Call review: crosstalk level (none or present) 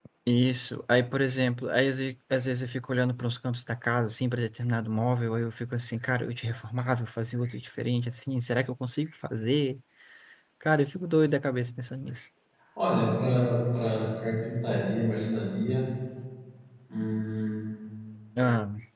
none